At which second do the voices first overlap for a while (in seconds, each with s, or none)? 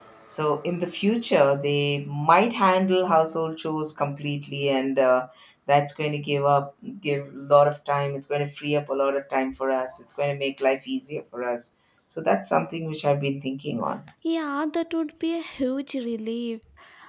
none